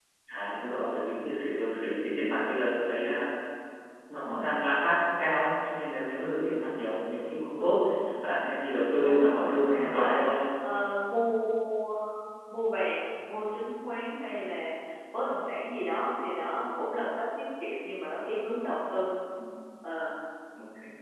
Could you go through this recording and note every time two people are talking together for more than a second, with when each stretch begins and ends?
9.0-10.2

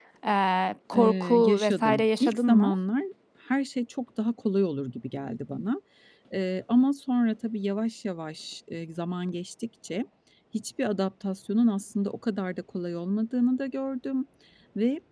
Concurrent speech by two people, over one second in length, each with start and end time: 0.9-2.8

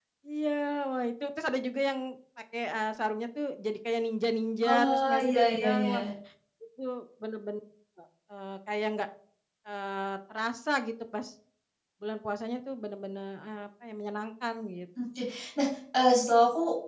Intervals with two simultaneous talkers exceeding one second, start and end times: 4.6-6.0

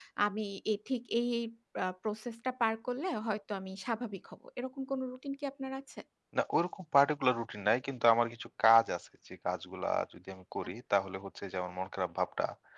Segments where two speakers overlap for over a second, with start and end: none

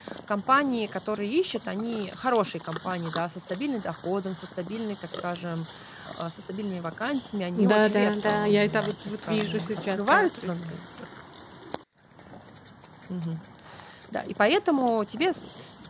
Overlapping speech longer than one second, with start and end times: 7.6-10.8

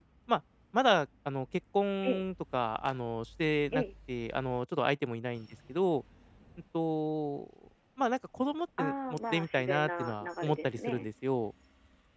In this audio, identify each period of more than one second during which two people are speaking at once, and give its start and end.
8.8-11.1

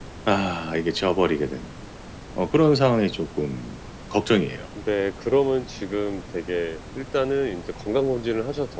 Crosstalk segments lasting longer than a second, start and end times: none

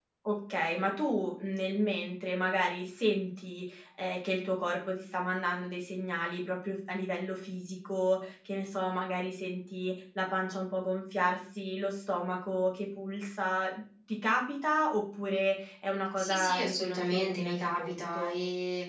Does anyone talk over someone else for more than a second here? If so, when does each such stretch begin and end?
16.2-18.4

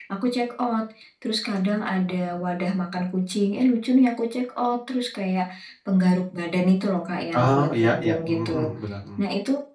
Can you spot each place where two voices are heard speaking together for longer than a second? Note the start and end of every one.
7.3-8.7

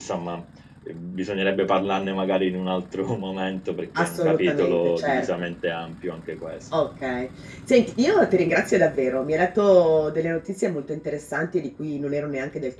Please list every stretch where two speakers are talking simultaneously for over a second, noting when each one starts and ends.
4.0-5.3

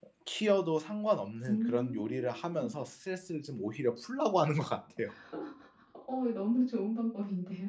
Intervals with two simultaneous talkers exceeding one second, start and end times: 1.5-2.7

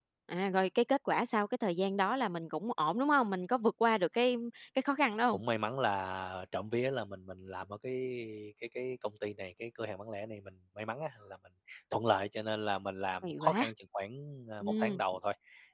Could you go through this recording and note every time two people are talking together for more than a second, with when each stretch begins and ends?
none

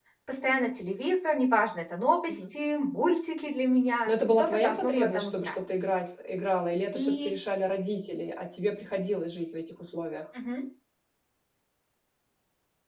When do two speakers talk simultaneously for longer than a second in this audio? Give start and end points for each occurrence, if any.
4.0-5.6

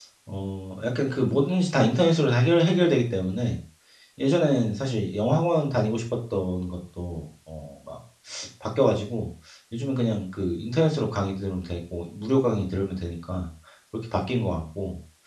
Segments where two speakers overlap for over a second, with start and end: none

